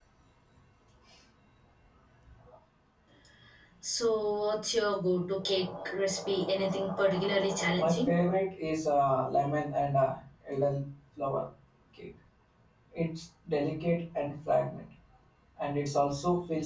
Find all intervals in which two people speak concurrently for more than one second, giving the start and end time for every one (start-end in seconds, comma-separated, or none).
none